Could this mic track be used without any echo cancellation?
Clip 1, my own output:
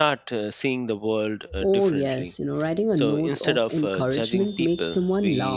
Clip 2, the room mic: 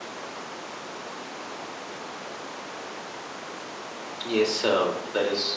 Yes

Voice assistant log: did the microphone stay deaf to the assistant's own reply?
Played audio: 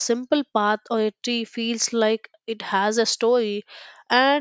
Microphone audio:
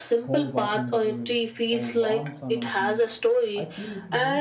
No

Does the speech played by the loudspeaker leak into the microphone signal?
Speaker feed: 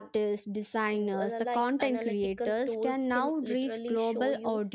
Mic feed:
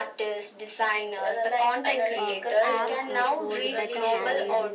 Yes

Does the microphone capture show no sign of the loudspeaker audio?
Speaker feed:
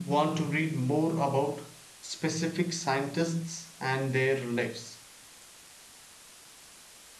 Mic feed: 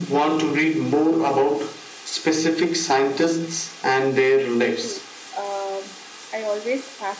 No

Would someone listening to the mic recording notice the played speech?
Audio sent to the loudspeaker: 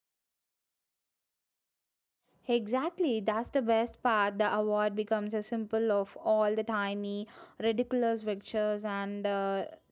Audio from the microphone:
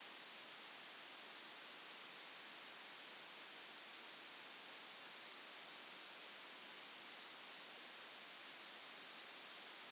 No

